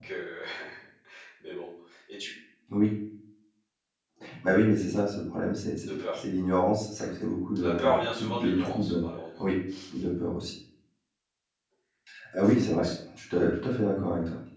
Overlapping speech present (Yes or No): Yes